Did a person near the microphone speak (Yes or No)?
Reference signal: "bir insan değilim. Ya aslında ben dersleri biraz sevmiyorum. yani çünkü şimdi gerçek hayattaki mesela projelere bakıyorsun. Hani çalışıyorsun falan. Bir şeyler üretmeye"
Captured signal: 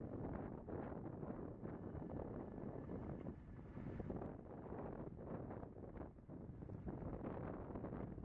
No